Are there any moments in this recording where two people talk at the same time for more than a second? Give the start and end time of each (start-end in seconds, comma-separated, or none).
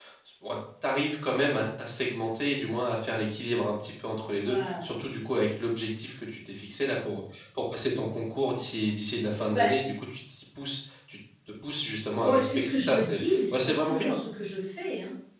12.2-14.2